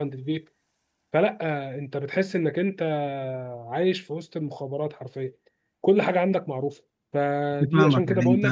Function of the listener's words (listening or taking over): taking over